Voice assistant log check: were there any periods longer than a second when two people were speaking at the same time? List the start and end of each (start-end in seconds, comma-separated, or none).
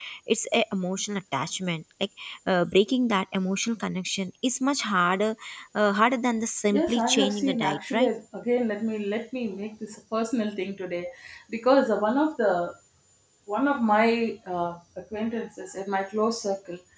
6.7-8.1